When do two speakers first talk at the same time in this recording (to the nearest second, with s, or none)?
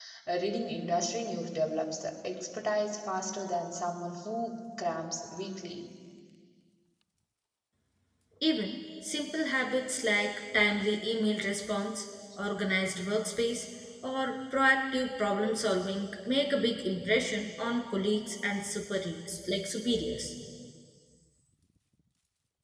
none